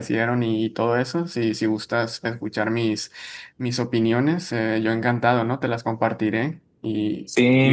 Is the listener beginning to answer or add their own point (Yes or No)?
Yes